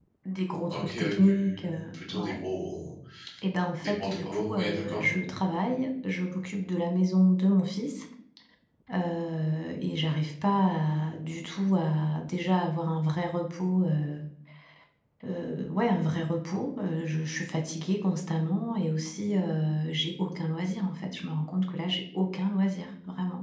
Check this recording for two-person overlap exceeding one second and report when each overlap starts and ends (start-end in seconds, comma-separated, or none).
0.7-2.3, 3.8-5.0